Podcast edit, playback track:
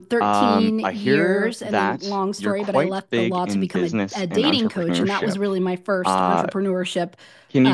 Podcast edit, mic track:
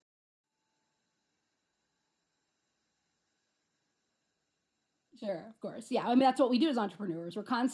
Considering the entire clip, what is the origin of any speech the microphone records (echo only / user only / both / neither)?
user only